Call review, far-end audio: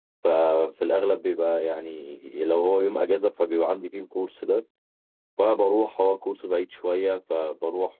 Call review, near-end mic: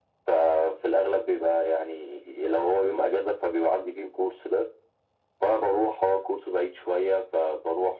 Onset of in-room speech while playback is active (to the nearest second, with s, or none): none